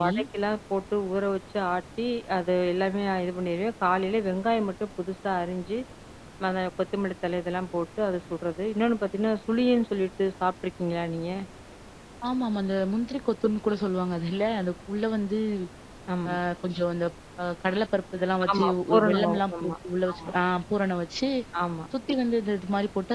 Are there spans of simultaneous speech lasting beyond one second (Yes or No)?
Yes